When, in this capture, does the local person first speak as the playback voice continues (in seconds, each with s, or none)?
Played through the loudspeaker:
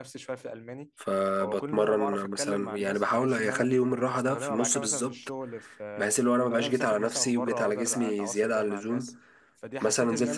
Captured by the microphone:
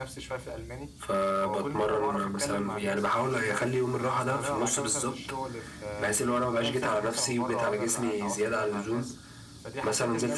none